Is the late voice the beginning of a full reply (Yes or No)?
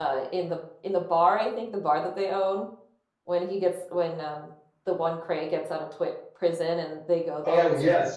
Yes